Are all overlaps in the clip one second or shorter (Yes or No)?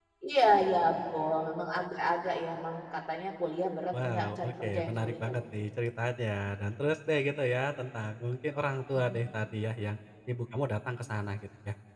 No